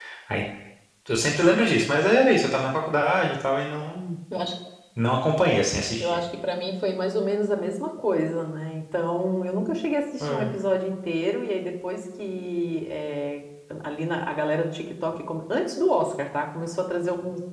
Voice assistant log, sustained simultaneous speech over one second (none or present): none